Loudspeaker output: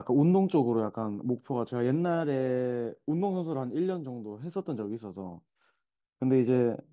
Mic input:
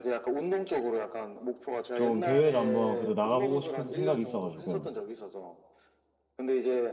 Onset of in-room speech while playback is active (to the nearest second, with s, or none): 2 s